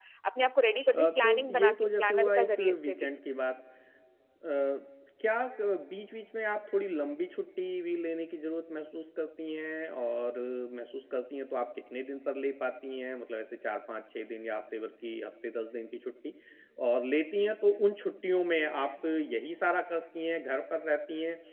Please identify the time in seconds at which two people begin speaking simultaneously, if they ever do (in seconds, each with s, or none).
1.0 s